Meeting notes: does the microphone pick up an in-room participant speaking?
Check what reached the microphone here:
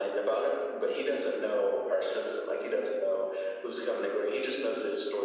No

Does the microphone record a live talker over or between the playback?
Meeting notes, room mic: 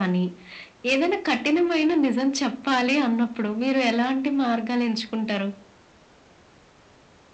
No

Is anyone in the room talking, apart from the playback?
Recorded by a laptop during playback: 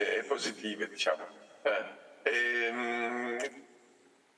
No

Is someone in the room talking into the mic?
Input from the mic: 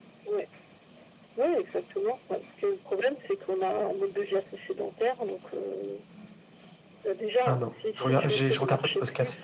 Yes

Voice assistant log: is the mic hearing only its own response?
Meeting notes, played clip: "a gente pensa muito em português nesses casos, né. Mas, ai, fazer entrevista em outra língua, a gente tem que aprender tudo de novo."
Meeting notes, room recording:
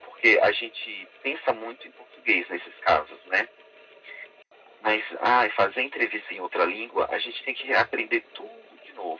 Yes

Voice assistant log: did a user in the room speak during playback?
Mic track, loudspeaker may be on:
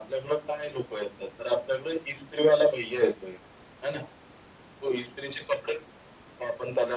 No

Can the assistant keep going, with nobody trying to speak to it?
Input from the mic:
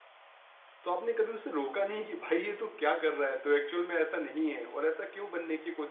No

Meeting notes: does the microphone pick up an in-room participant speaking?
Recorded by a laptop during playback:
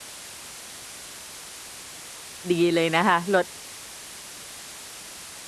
Yes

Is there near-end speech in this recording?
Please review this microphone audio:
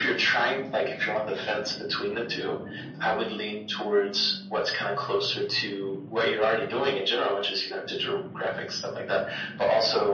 No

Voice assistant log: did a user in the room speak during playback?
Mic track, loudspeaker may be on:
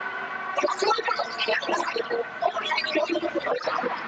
No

